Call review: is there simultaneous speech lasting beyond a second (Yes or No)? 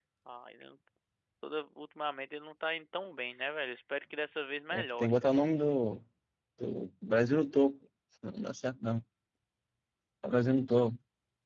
No